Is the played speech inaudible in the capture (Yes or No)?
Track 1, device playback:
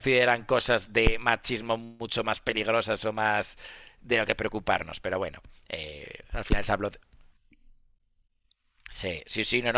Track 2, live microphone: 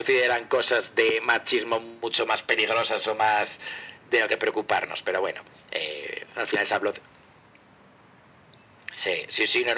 No